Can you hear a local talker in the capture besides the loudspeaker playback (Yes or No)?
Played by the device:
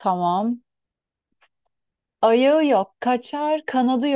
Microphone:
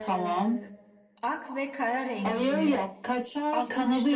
Yes